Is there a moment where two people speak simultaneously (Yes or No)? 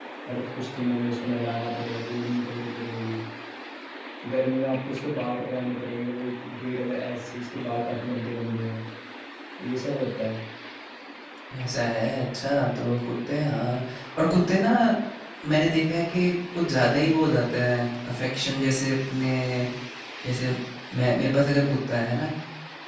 No